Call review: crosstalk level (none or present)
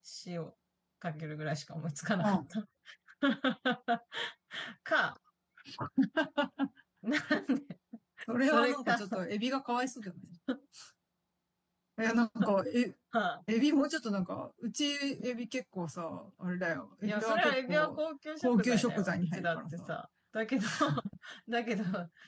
present